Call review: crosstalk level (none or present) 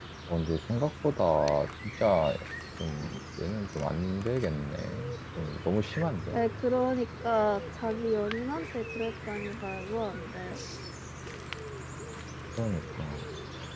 none